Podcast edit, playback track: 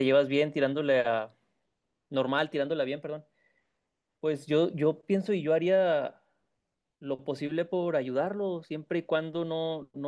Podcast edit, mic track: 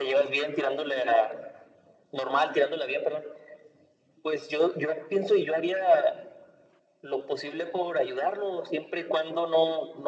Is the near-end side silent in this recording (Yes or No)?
Yes